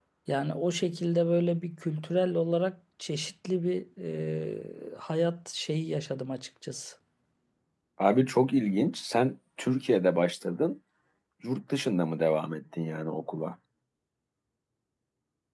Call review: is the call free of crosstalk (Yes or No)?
Yes